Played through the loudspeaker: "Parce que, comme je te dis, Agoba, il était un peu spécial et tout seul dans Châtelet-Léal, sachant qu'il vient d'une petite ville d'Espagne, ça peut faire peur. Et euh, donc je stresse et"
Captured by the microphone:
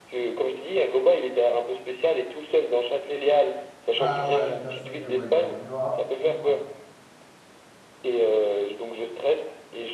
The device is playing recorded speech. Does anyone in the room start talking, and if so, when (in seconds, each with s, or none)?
4.0 s